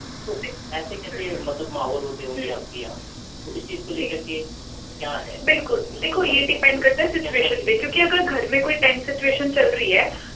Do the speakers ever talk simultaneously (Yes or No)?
Yes